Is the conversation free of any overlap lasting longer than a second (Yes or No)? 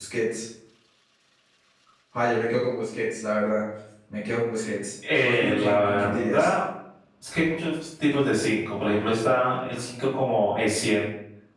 No